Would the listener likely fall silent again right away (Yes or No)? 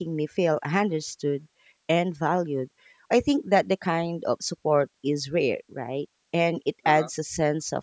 Yes